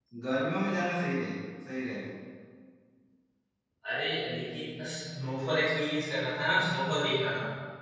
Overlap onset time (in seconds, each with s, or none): none